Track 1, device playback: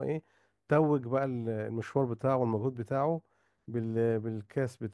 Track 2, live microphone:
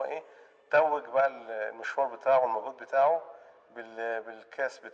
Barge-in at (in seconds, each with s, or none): none